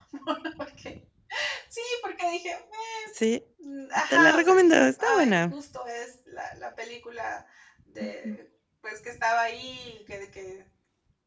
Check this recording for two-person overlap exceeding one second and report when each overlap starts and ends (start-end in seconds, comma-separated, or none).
4.1-5.5